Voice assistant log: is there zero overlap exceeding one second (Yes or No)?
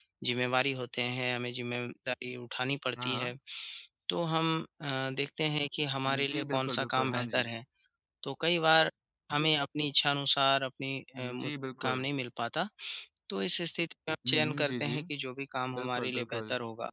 No